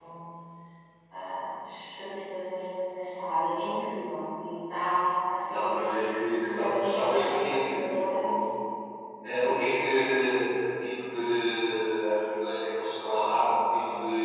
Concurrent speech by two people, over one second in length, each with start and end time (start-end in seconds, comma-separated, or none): 6.3-8.3